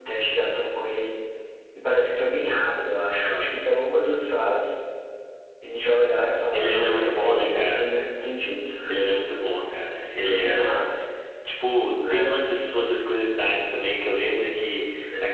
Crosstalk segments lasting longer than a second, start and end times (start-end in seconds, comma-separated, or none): 6.5-7.9